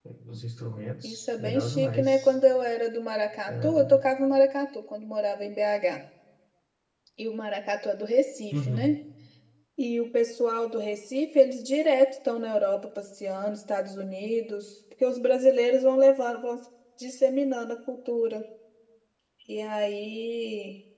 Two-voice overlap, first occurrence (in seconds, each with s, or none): 1.0 s